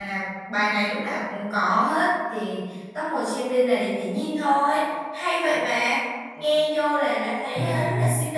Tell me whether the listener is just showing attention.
Yes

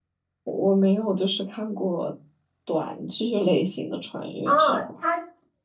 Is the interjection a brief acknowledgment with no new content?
No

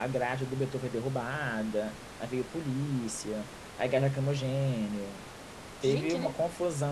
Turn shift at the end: No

